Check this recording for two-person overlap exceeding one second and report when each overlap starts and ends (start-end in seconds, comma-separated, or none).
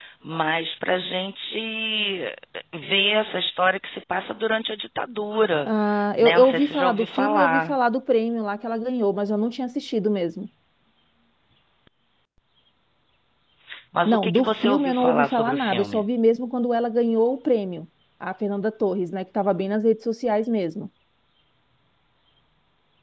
6.2-7.7, 14.0-16.0